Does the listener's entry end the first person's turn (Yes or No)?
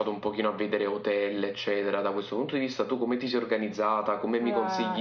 Yes